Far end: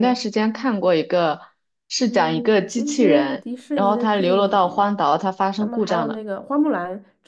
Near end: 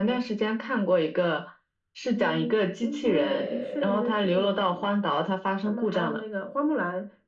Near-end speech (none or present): present